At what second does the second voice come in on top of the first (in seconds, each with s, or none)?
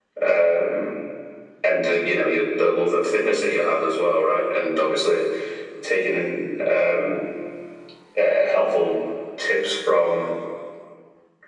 none